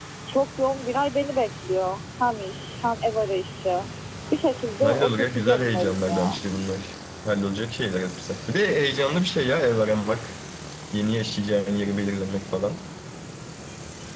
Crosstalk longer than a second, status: present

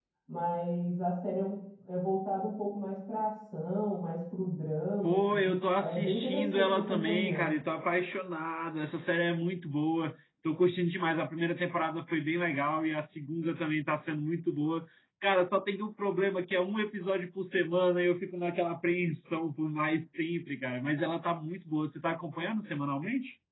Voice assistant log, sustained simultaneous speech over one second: present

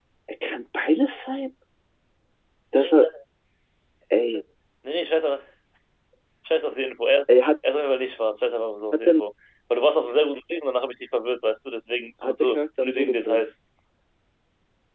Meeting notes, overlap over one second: present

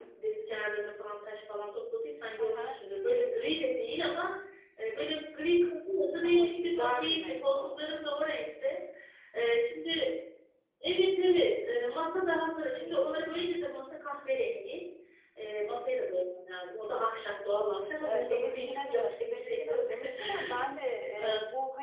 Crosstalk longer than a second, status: present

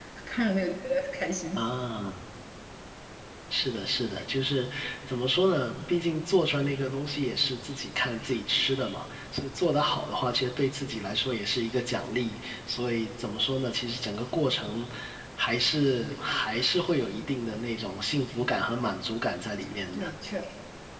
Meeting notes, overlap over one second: none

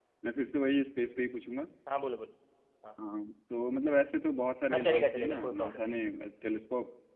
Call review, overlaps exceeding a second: present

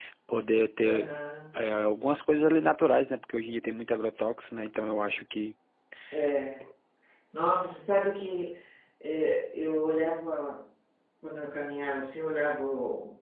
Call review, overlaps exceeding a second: none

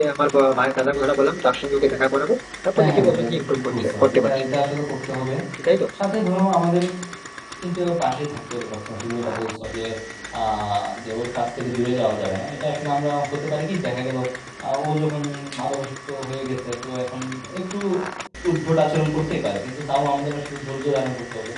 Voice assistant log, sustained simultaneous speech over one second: present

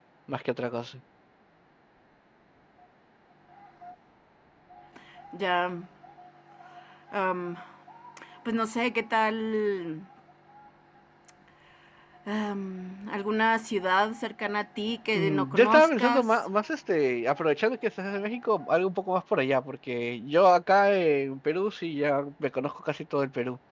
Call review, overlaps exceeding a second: present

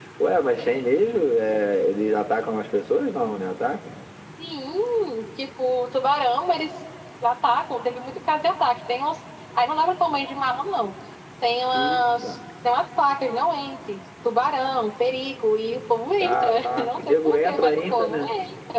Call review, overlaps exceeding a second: present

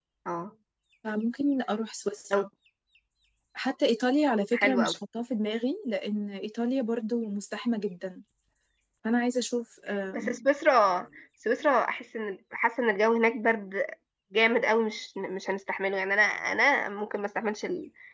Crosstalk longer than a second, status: none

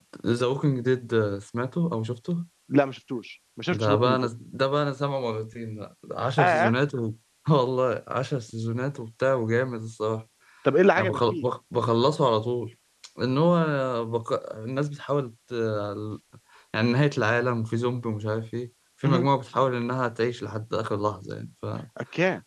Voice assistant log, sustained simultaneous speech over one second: none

